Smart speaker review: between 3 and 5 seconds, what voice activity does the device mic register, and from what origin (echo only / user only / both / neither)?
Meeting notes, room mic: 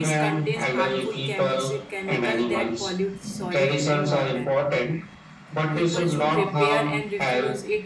both